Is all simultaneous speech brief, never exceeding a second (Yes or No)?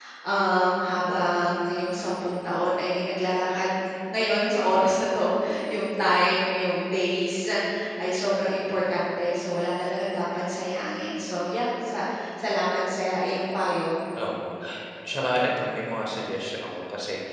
Yes